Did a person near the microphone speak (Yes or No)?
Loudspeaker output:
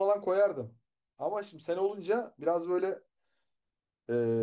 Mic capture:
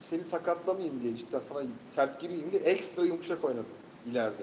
Yes